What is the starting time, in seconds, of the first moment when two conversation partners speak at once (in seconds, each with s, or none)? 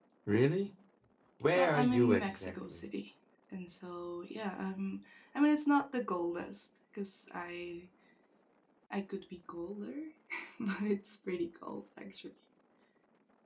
1.5 s